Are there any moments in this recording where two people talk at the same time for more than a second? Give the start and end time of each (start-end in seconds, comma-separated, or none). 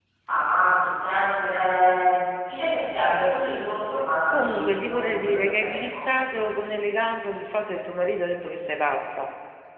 4.5-6.0